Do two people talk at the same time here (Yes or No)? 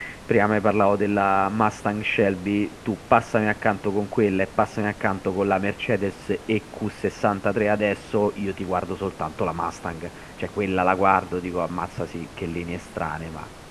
No